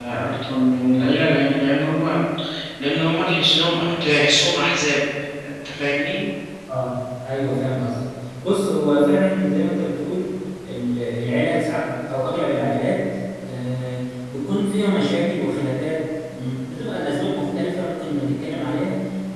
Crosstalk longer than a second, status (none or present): none